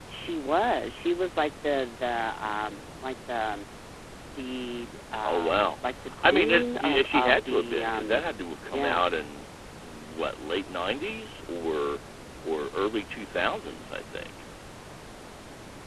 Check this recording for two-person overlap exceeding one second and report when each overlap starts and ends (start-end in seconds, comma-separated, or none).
7.0-8.2